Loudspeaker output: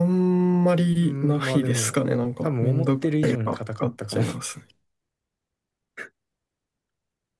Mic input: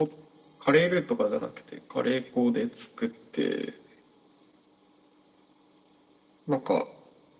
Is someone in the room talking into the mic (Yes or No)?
Yes